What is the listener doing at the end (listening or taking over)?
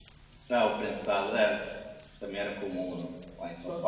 taking over